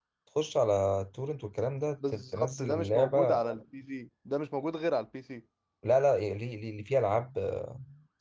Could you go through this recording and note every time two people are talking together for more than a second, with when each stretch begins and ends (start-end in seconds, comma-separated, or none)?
2.1-3.4